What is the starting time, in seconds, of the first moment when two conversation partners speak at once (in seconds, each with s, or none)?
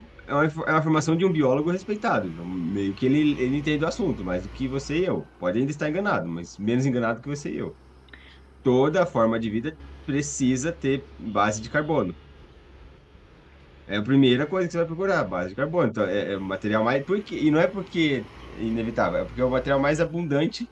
none